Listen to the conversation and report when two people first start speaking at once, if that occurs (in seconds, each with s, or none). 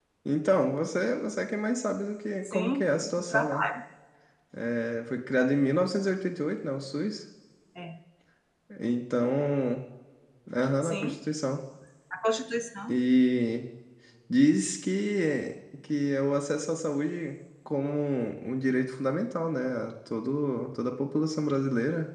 2.5 s